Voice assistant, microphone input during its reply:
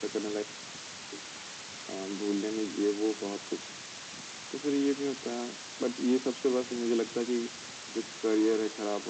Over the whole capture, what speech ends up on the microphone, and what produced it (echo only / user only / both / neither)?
echo only